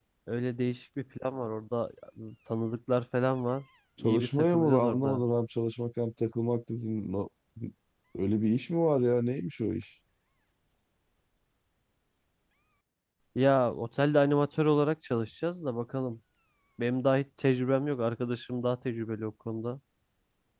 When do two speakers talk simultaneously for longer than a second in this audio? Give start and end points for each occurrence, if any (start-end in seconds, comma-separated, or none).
4.0-5.2